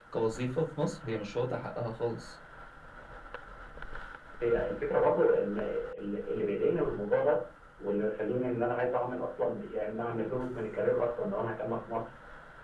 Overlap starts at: none

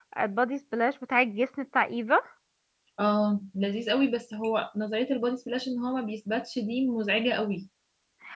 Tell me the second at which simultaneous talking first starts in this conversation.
none

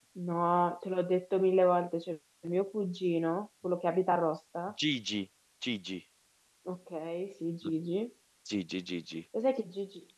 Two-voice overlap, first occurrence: none

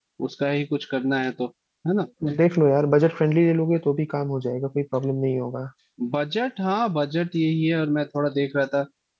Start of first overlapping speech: none

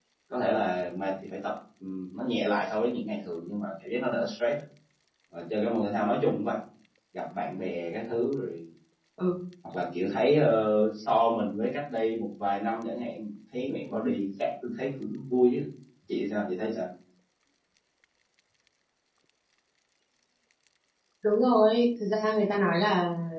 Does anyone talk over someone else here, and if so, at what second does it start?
none

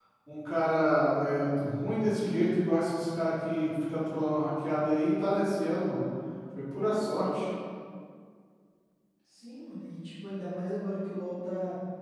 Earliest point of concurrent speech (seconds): none

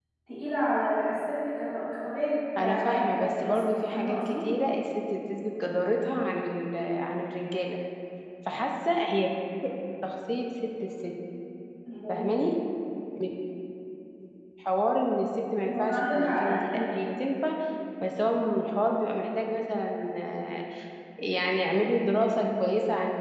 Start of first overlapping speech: 3 s

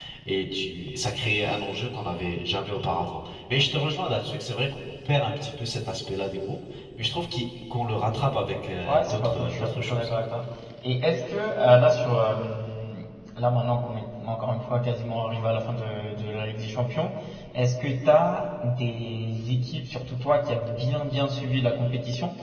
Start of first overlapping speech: 9 s

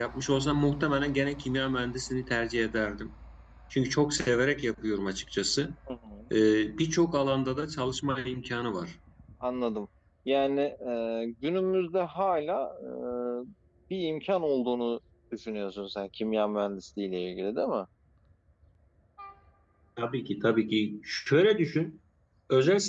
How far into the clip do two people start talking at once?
none

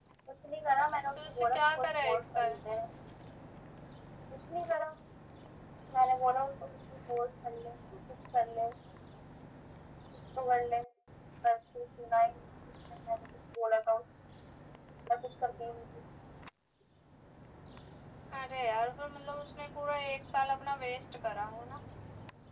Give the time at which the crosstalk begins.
1 s

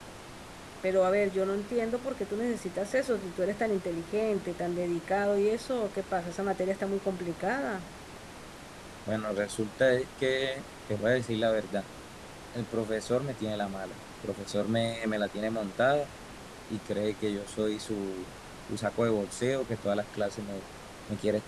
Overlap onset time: none

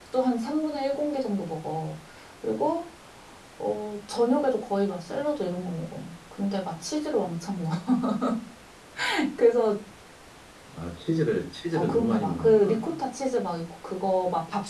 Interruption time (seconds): 12 s

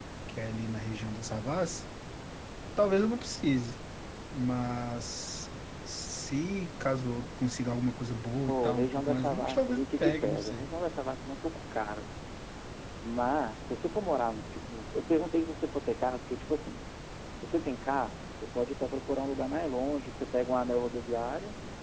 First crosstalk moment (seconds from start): 8 s

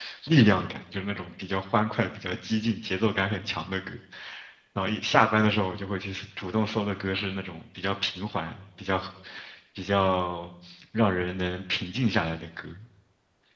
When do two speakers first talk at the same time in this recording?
none

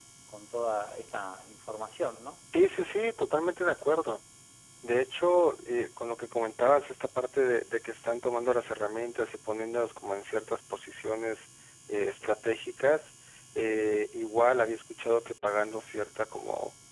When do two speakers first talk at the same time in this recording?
none

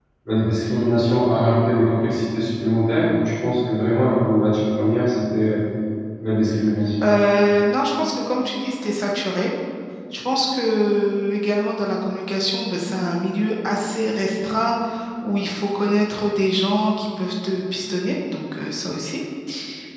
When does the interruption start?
none

